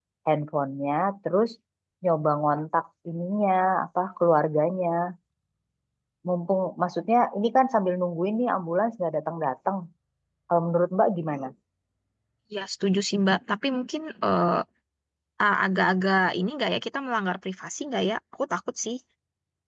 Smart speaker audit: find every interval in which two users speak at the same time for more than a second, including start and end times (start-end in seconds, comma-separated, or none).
none